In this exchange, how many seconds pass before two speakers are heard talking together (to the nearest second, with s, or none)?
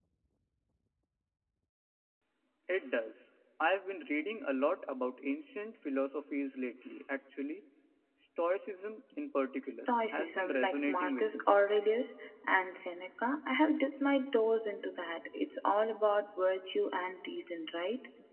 10 s